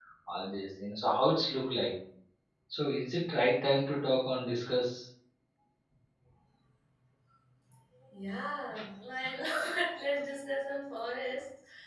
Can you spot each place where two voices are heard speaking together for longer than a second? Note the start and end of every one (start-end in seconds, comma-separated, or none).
none